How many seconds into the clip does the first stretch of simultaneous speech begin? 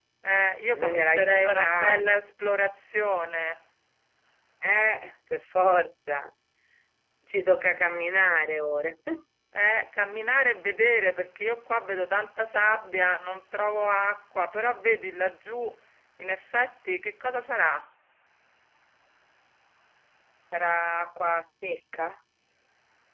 0.7 s

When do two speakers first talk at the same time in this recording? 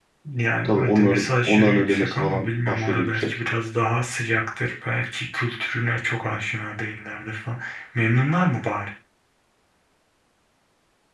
0.6 s

